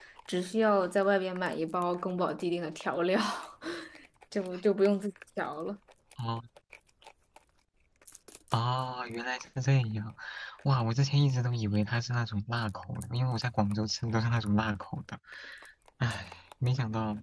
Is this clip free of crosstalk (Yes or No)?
Yes